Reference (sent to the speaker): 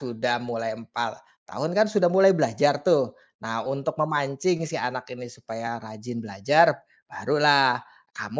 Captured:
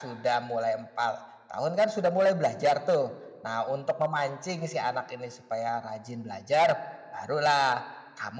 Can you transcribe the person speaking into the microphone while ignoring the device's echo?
none

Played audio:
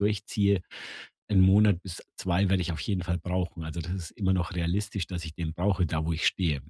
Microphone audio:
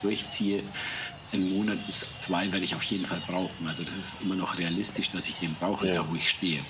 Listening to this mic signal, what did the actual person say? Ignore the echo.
Ja.

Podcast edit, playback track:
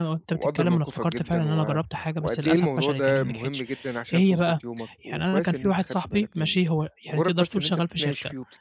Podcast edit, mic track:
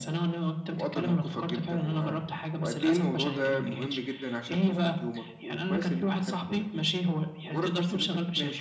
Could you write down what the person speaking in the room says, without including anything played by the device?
none

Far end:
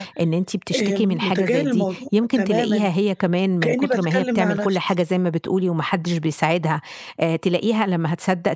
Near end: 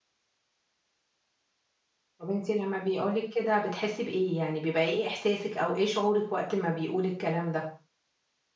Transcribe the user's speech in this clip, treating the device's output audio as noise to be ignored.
طب أنتِ لمّا بيقول لِك كده بتحسّي بإيه، يعني بيبقى إيه إحساسِك أو إيه شعورِك وقت ما بيقول الكلام ده؟

